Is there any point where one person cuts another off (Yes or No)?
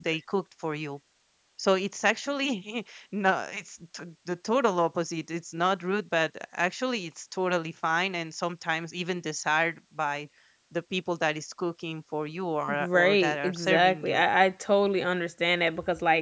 Yes